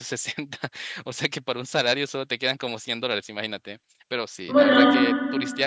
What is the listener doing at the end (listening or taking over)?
listening